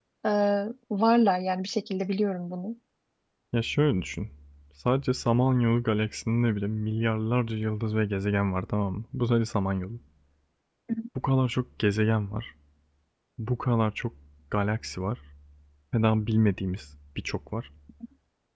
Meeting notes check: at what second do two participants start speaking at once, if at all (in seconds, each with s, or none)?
none